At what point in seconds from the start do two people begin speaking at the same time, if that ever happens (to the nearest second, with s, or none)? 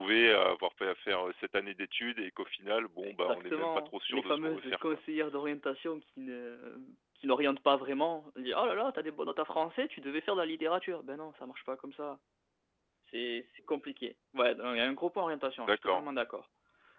3 s